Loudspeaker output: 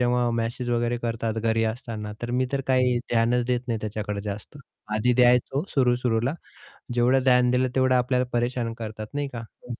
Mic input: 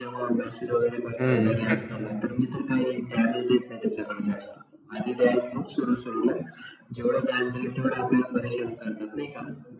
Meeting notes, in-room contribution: present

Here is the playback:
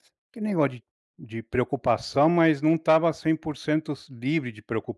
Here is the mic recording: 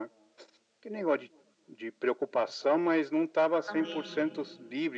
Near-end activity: present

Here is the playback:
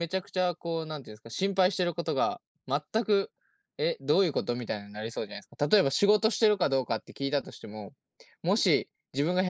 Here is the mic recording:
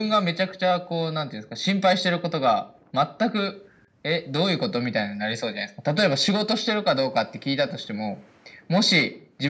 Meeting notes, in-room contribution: none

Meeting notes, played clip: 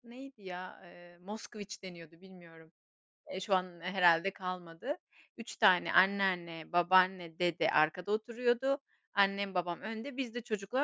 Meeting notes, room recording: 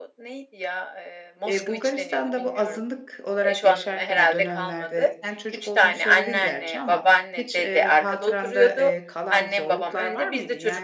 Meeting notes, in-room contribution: present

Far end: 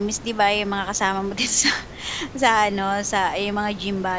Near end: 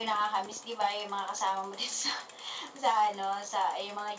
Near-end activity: none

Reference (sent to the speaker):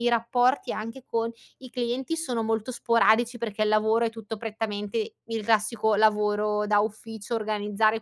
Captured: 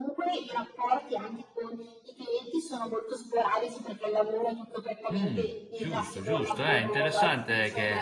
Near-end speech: present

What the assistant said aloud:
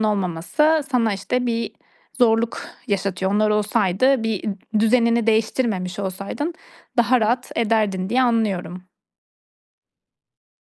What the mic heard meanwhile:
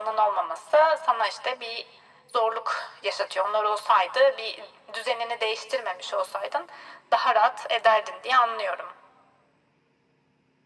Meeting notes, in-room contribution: none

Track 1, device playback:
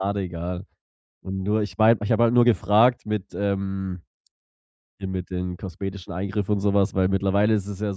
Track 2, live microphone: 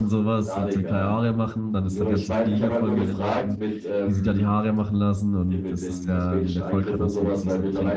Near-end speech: present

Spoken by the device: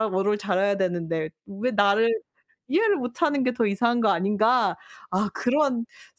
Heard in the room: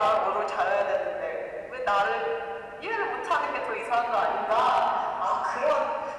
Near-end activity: none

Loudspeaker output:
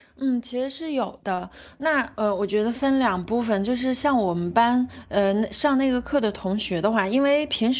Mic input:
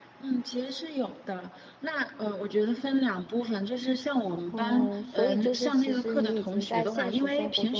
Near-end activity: present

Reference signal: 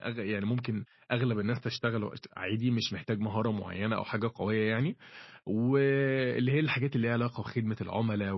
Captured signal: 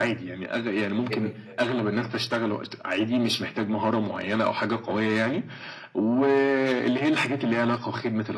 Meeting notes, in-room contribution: present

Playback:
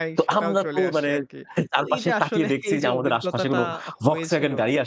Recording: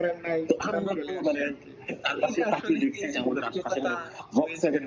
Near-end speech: none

